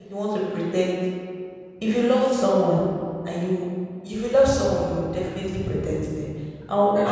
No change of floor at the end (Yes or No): Yes